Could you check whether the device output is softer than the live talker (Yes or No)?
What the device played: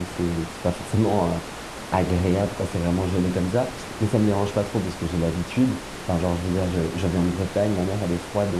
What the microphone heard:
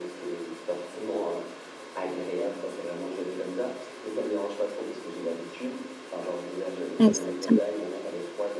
Yes